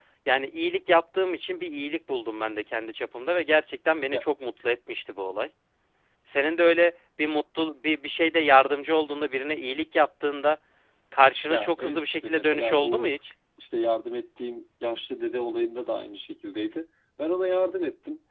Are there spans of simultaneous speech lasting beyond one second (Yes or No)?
Yes